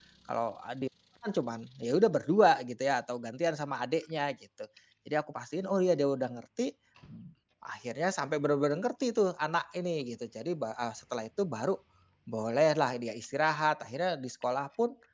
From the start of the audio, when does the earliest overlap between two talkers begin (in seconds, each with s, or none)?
none